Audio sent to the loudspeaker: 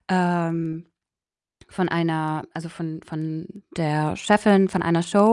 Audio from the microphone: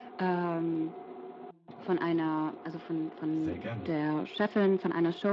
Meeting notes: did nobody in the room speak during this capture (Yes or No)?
No